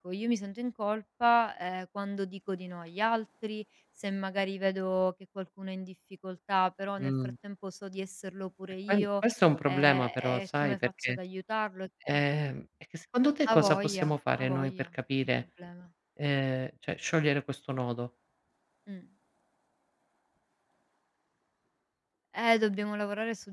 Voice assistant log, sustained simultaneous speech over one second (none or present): present